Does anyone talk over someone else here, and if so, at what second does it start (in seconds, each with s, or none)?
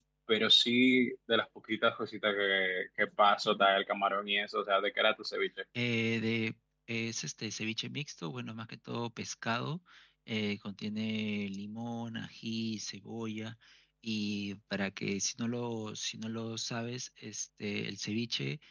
none